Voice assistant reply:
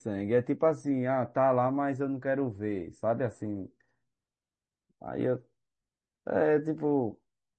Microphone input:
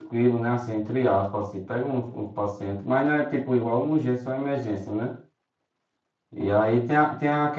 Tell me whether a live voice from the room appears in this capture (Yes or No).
Yes